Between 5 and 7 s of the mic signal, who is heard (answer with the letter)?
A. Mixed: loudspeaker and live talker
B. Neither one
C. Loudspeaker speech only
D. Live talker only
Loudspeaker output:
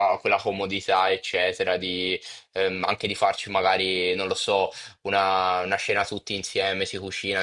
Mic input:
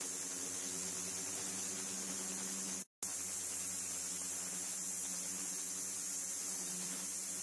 B